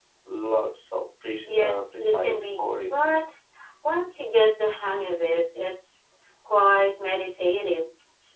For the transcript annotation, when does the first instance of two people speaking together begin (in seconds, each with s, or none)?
1.4 s